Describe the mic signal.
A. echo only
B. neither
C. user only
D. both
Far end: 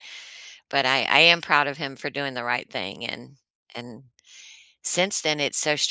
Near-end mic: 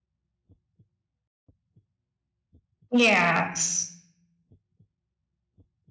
C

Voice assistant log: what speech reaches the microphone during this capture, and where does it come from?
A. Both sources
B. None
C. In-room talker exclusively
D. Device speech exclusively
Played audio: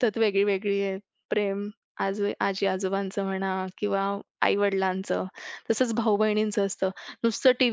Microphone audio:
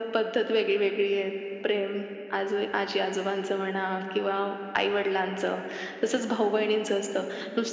D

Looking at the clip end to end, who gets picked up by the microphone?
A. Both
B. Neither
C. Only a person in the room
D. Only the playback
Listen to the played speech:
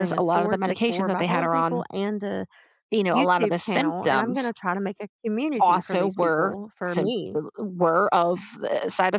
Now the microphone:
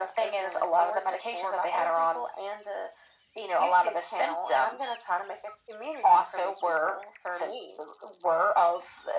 D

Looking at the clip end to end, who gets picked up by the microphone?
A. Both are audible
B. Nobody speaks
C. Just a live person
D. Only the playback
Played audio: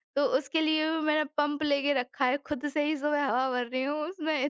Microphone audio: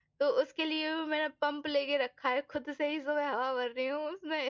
D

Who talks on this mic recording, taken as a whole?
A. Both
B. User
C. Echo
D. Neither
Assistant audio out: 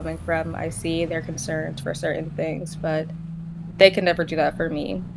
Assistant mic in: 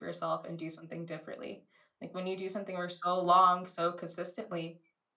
B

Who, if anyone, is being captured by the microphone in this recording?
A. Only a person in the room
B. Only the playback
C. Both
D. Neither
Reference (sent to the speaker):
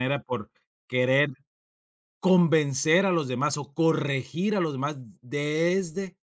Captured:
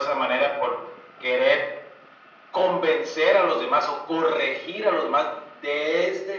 B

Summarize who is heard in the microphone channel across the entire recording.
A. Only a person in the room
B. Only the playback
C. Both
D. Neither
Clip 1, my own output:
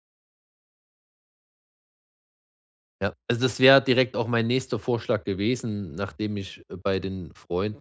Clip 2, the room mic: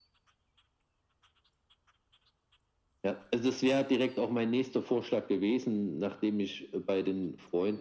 B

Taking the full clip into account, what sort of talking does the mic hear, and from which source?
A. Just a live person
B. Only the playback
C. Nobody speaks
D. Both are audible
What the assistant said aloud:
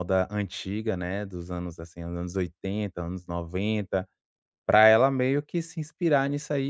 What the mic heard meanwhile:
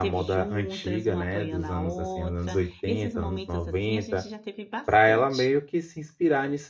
D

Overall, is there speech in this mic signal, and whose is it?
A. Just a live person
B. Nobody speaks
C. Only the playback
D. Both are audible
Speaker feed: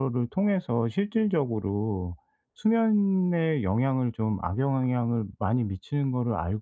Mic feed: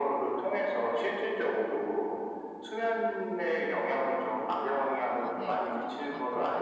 D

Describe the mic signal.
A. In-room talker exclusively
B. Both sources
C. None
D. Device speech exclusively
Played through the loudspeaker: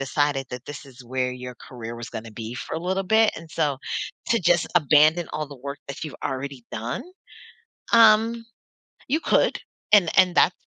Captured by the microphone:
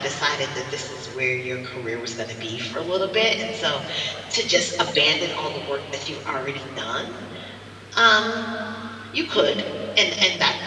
D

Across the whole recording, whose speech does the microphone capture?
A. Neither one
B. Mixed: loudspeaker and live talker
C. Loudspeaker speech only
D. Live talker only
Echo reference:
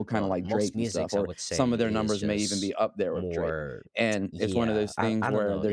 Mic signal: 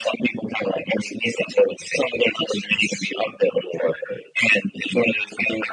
C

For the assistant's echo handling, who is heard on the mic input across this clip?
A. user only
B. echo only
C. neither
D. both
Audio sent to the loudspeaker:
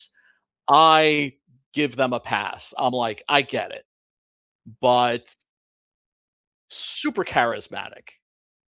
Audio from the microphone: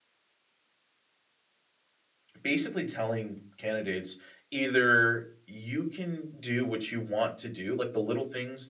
A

